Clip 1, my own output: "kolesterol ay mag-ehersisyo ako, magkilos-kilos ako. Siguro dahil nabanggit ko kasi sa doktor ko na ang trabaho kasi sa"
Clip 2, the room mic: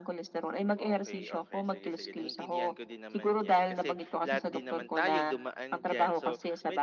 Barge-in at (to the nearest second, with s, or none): 1 s